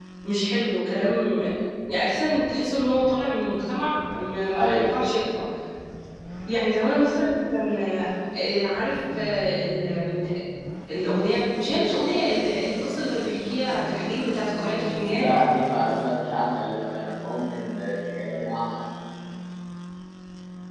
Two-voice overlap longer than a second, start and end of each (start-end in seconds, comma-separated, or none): none